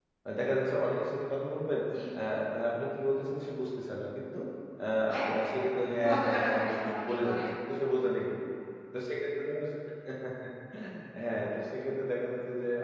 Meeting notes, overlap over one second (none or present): present